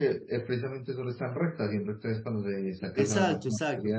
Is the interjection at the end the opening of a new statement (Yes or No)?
Yes